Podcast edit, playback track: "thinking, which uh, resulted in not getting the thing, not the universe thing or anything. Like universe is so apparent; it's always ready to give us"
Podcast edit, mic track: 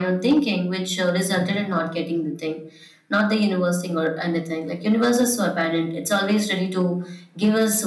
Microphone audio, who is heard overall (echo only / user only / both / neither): echo only